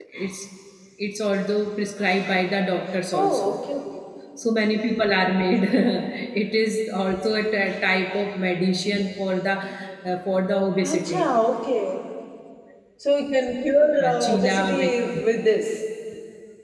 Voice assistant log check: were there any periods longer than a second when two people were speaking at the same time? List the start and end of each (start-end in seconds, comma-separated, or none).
14.0-15.2